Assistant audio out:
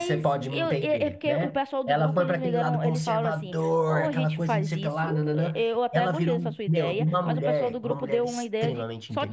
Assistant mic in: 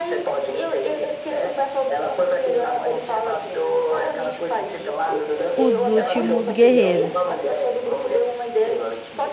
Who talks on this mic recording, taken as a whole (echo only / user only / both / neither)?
both